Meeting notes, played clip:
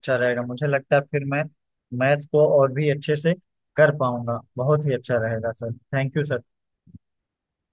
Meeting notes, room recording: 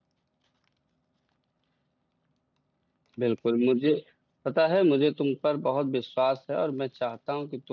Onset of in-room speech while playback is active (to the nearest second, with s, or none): 3 s